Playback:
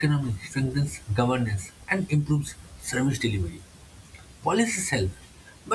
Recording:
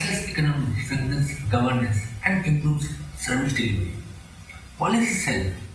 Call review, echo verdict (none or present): present